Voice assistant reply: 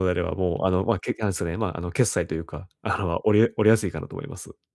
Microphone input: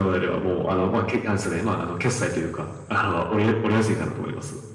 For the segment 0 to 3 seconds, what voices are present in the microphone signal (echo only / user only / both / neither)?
echo only